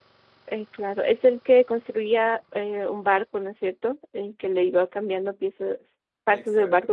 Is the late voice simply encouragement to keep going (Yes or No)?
No